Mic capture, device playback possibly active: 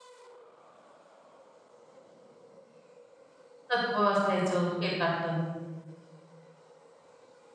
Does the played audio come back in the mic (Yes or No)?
No